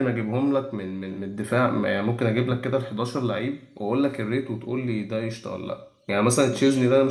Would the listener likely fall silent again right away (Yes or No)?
Yes